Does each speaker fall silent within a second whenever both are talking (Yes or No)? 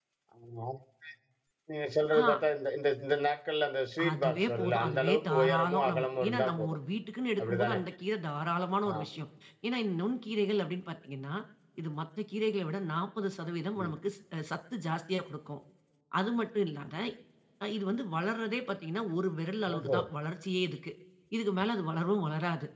No